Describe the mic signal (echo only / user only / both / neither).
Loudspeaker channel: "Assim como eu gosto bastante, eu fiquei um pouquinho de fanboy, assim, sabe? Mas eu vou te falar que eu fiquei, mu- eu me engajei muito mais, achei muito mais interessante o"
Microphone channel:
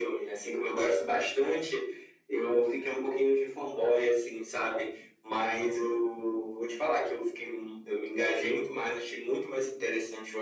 echo only